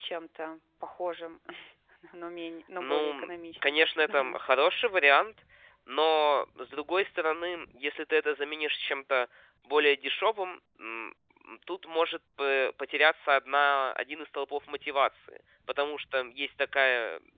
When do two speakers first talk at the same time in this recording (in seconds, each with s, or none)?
2.8 s